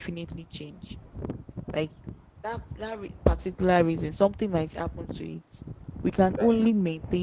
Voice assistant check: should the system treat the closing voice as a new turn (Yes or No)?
No